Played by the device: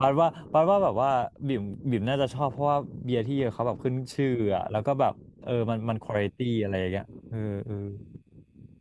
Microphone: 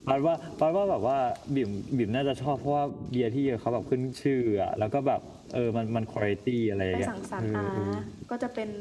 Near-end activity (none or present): present